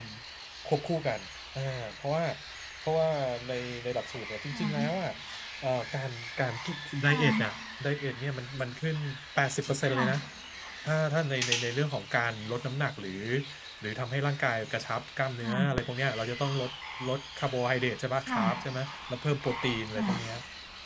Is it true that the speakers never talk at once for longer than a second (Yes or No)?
Yes